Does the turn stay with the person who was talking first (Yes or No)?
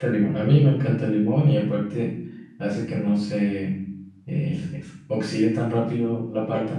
No